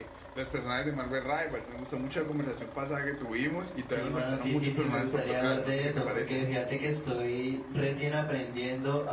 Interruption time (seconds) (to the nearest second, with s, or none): 4 s